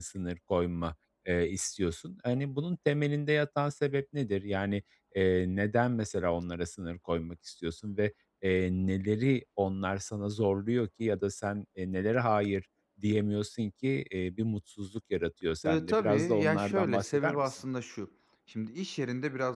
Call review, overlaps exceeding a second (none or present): present